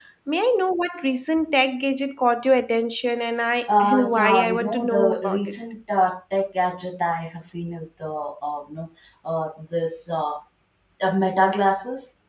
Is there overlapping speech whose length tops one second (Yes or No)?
Yes